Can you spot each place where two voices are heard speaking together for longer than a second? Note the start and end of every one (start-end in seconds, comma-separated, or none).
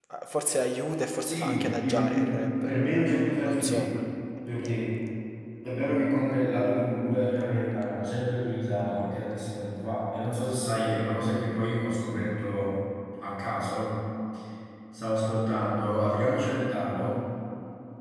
1.2-3.9